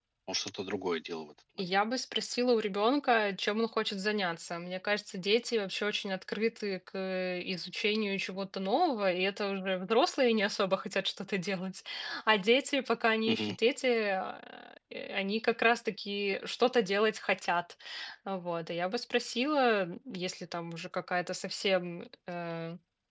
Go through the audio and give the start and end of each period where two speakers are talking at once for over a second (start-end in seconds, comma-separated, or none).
none